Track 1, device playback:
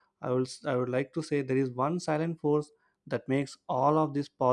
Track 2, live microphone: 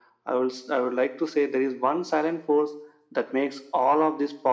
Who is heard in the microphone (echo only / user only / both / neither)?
echo only